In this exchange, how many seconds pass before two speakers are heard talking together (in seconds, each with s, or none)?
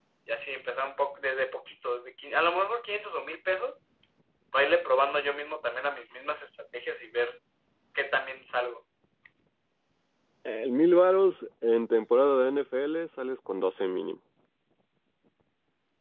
none